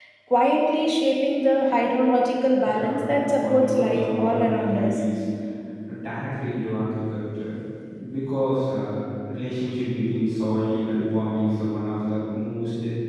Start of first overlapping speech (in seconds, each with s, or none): 2.6 s